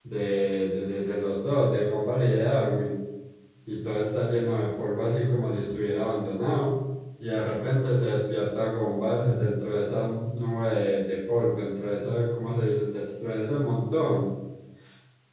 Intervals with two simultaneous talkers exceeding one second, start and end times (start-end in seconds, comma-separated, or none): none